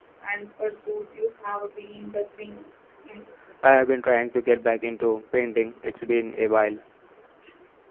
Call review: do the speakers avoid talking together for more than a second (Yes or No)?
Yes